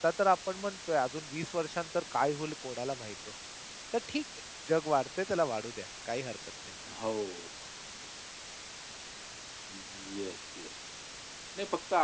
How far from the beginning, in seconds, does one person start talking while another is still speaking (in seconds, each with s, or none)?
none